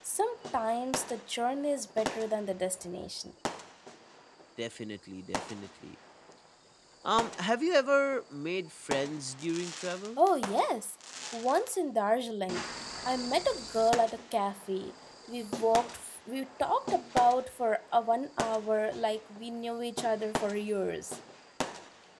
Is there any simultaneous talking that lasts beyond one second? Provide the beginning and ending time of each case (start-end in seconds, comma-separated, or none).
none